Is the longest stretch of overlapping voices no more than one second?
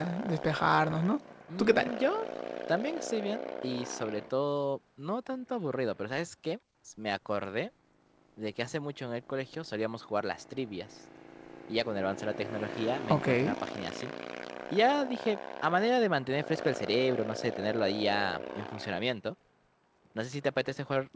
Yes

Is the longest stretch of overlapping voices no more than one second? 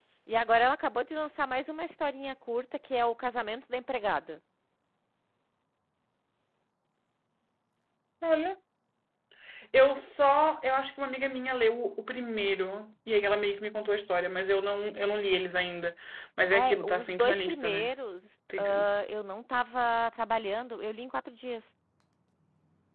No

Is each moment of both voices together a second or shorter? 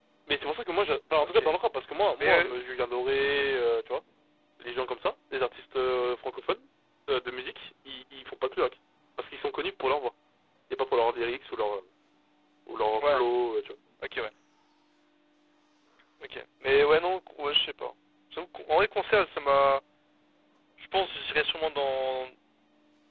Yes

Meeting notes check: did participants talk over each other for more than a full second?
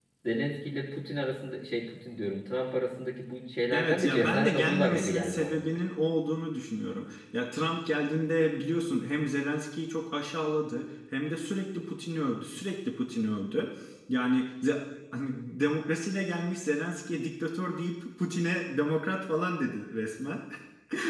Yes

